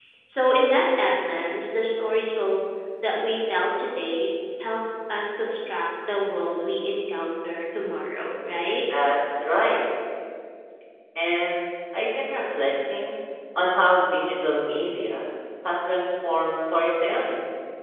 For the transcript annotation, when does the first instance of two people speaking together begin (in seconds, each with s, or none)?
none